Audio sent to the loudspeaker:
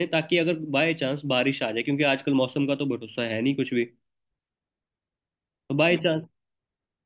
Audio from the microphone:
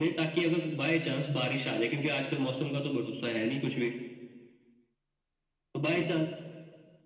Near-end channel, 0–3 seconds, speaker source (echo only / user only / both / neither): echo only